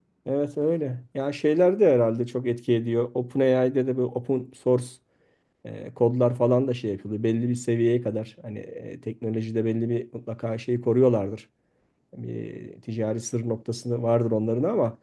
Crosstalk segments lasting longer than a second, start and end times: none

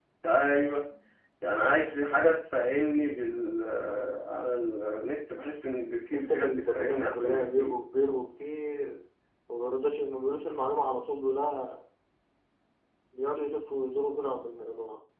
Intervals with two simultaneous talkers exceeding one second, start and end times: 6.1-7.8

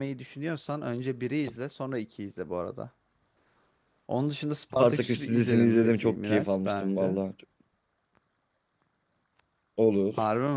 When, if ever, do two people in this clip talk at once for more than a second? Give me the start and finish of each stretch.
4.8-7.2

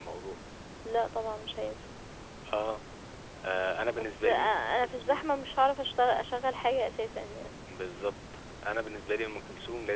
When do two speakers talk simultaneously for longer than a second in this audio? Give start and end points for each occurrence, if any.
3.9-5.3

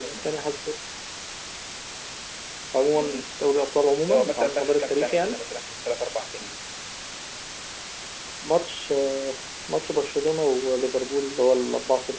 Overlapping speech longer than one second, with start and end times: 4.1-5.4

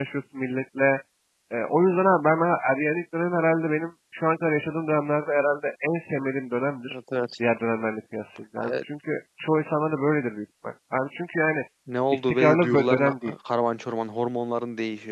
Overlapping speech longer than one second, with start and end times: 12.1-13.3

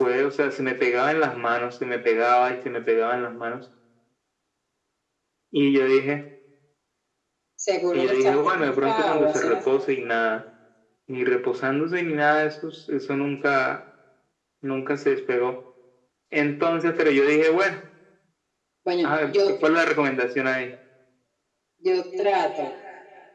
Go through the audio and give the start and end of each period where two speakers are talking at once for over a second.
7.9-9.6

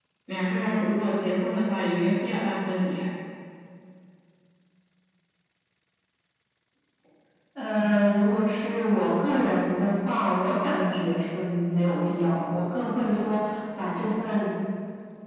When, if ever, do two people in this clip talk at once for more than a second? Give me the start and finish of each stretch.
none

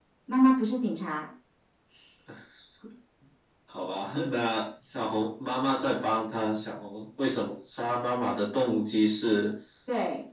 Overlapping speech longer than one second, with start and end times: none

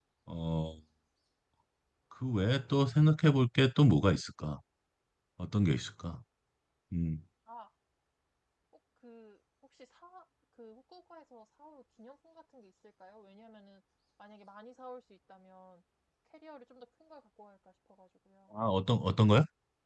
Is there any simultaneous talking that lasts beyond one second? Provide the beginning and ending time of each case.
none

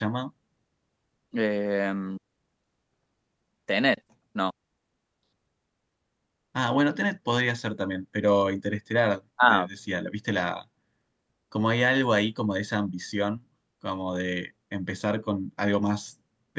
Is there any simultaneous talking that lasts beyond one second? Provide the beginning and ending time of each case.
none

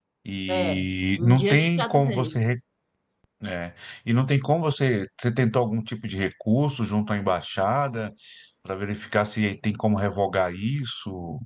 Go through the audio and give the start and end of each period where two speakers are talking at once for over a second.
1.2-2.4

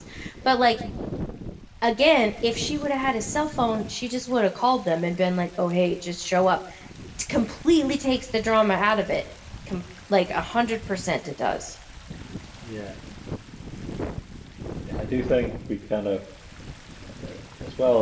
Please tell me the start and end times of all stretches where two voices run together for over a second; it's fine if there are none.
none

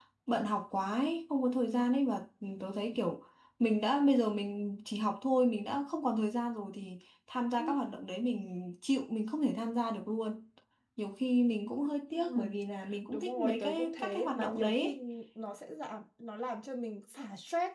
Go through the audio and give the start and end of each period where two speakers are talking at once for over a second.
13.1-14.9

